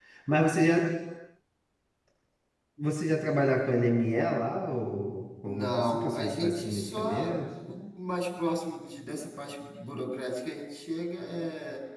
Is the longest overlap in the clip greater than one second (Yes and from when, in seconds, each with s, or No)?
Yes, from 5.4 s